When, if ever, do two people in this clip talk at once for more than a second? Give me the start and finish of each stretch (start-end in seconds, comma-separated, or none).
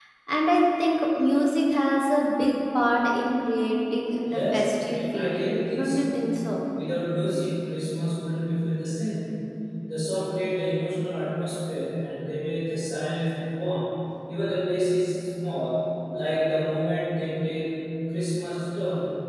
4.3-6.2